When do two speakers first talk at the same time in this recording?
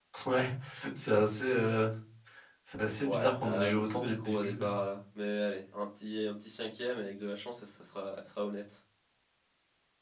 3.0 s

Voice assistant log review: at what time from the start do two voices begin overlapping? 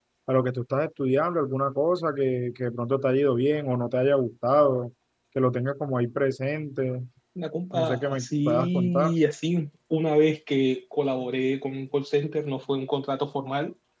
7.7 s

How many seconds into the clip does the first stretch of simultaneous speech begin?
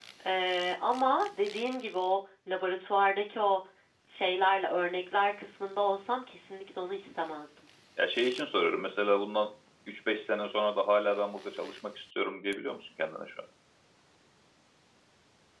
none

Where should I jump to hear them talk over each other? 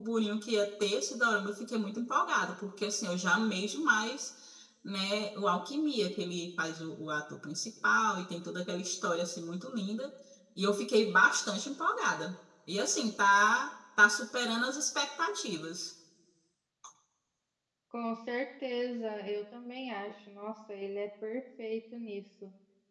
none

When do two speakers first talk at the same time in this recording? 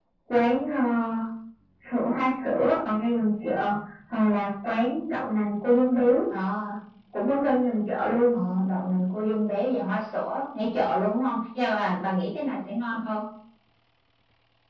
none

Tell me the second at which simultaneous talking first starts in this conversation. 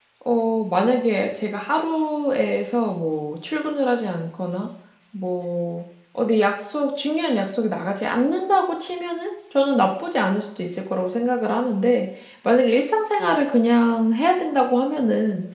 none

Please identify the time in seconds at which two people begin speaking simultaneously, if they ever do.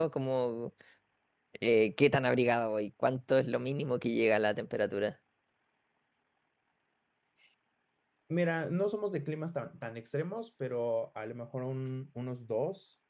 none

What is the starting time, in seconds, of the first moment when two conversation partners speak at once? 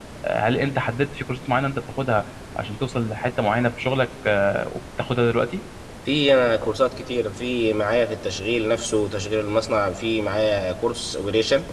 none

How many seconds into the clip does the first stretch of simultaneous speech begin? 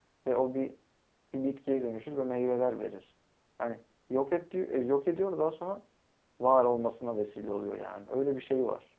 none

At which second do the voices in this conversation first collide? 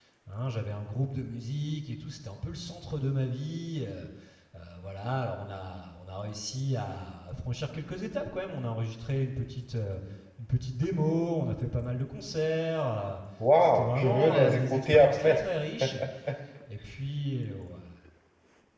13.6 s

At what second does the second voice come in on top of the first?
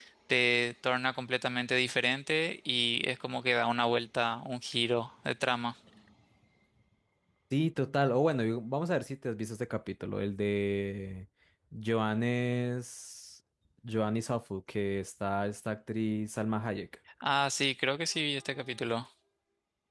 none

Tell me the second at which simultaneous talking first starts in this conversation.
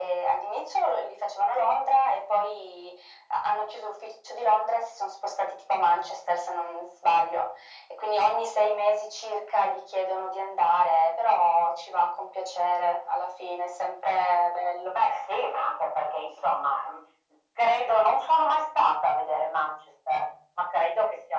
none

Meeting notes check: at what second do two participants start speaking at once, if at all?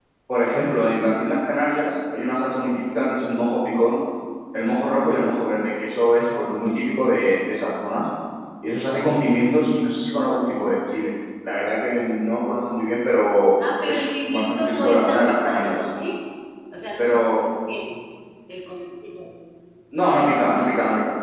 13.9 s

